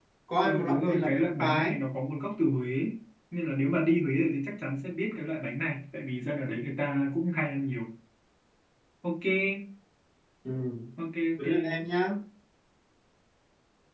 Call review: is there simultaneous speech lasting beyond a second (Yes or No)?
Yes